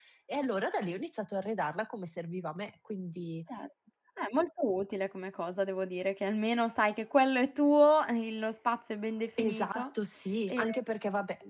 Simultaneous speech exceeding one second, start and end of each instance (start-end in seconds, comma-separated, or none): none